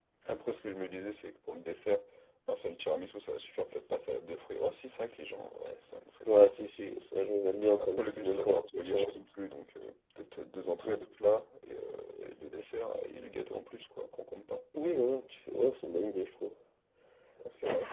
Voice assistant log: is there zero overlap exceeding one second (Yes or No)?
No